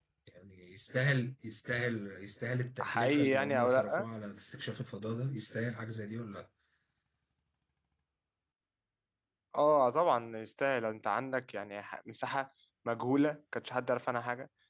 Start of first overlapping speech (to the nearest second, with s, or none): 3 s